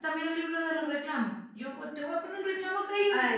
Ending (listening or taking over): taking over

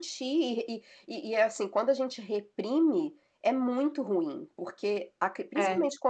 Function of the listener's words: listening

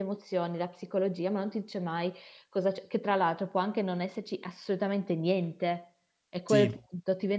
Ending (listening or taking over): listening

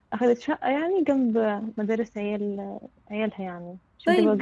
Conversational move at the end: taking over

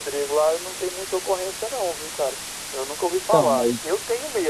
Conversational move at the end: listening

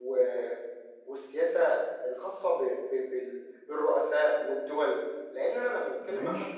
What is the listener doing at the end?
listening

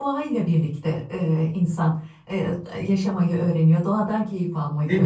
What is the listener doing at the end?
taking over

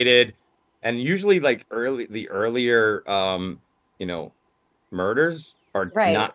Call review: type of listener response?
listening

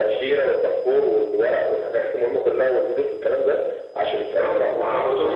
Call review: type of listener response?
taking over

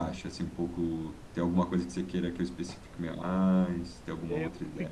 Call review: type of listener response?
taking over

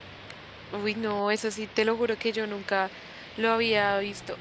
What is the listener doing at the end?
listening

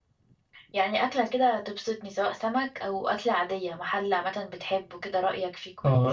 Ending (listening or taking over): taking over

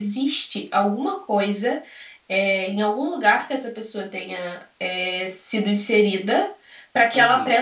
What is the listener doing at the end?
listening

